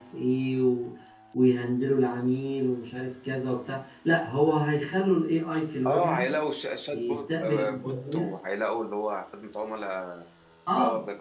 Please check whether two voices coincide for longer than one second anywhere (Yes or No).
Yes